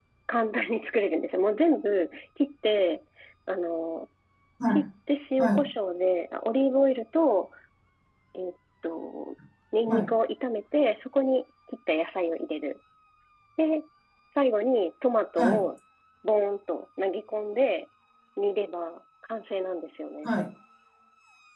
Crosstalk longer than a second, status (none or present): none